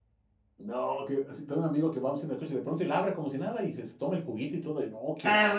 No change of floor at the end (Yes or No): No